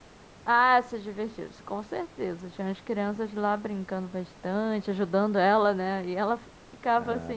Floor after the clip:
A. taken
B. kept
B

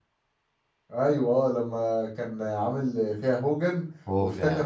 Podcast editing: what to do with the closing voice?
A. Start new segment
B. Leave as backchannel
B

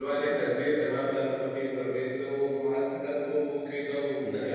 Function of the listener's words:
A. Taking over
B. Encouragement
B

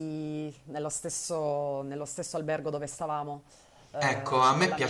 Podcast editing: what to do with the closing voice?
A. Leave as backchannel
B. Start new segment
B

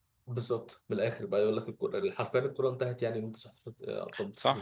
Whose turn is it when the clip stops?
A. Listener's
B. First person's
A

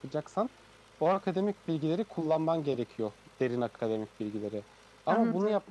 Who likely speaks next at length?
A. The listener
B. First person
B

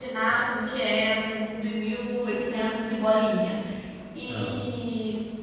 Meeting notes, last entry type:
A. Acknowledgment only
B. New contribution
A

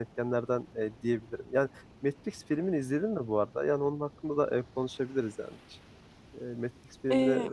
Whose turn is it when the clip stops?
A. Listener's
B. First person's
A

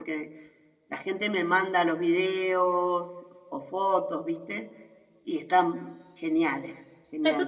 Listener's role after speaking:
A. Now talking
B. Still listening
A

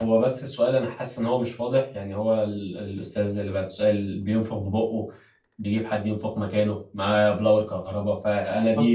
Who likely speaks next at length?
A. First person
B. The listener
A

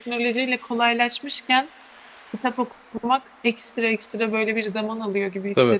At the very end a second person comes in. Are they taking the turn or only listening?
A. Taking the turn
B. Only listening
B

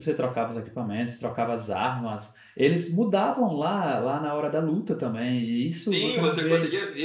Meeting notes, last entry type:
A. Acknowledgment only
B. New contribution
B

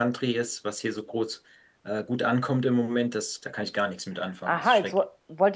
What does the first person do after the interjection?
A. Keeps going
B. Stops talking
B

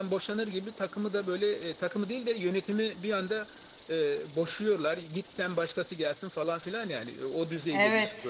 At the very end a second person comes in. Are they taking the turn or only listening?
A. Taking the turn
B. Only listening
A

